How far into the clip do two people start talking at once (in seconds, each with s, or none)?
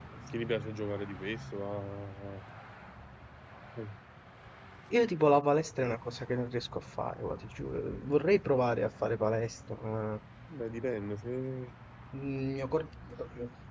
none